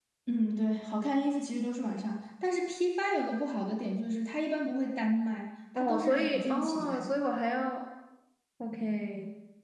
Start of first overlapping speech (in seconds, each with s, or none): 5.8 s